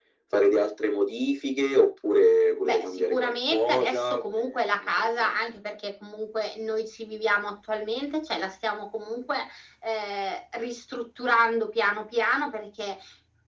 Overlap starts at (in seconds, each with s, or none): 2.6 s